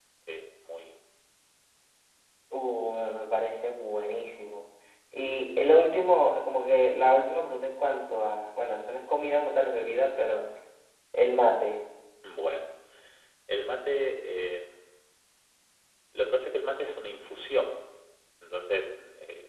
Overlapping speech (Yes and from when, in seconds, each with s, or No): No